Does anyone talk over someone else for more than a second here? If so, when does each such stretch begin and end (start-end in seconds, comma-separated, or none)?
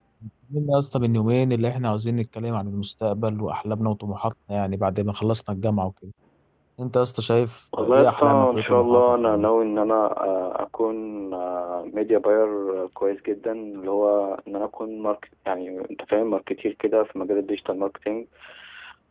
7.8-9.5